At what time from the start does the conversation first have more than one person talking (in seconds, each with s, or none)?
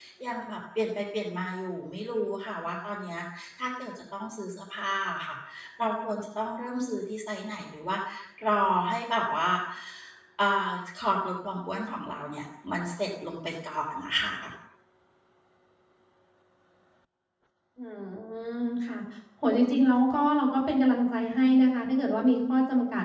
none